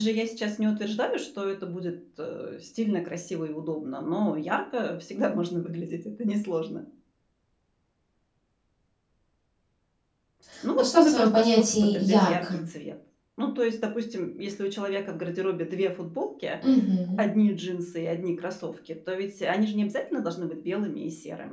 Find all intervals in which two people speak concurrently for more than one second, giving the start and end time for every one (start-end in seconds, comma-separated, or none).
10.8-12.6